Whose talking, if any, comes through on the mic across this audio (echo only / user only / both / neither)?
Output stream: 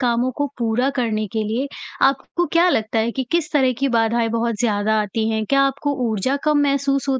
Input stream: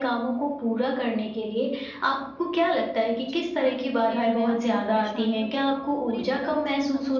both